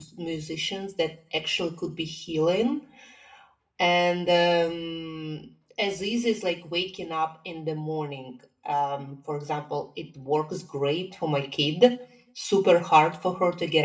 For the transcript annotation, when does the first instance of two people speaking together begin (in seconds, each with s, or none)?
none